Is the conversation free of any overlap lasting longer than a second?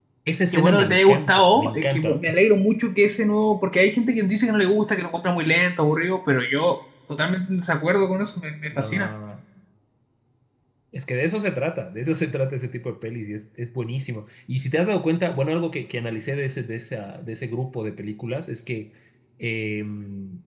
No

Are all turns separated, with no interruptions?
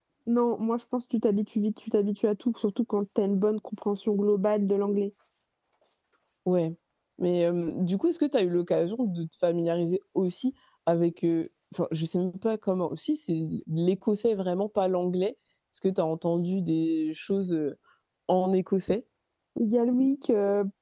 Yes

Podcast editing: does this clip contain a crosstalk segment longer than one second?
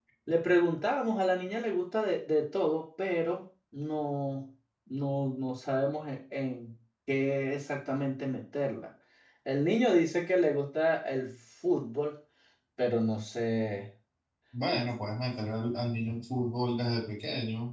No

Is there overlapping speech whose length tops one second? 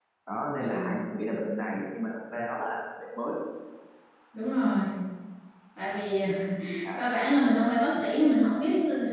No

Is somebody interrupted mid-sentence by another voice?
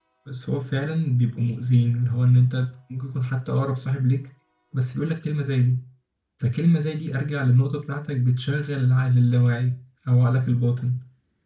No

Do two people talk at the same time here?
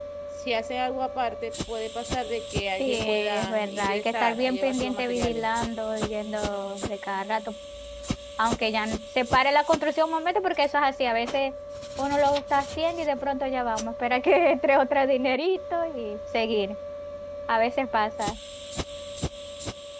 Yes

